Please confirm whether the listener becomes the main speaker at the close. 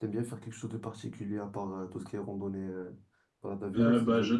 Yes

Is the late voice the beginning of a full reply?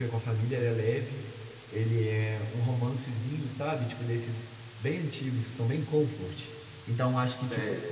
No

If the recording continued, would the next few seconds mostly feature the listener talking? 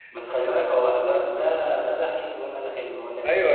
Yes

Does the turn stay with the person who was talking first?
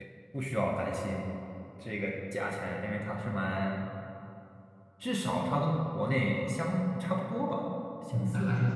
No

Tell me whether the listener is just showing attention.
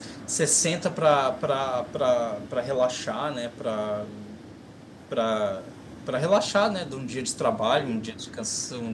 Yes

